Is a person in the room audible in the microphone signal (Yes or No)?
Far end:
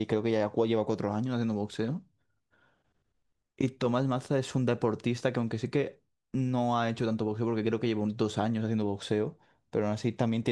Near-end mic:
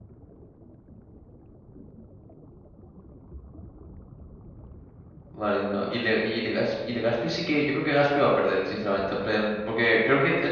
Yes